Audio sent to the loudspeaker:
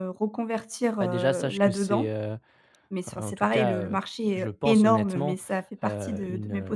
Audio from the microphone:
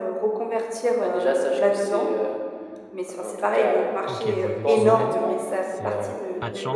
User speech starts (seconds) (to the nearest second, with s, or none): 4 s